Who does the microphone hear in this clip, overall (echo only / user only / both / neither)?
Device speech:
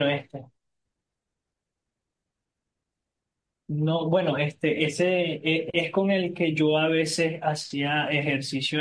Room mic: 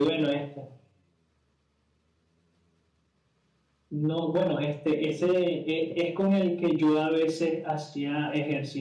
echo only